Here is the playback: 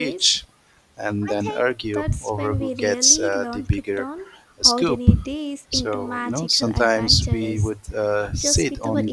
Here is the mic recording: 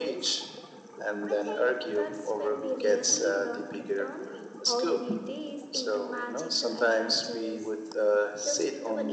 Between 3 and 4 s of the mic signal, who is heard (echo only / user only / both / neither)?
echo only